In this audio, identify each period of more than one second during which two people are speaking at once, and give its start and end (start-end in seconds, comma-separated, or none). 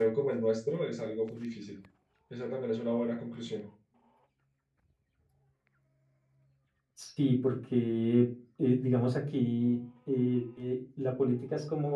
none